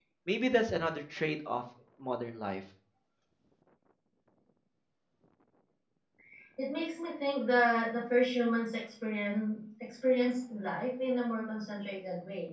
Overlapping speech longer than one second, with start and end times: none

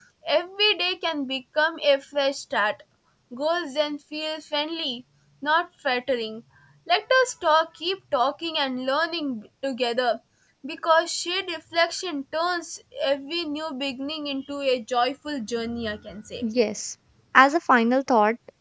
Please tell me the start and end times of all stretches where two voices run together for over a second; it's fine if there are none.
none

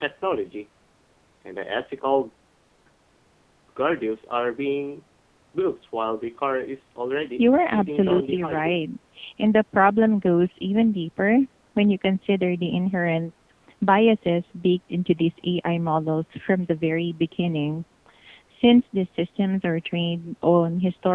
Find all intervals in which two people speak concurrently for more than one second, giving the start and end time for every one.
7.4-8.8

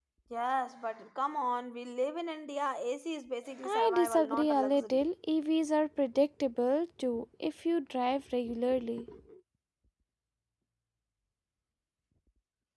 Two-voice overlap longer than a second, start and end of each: 3.6-5.0

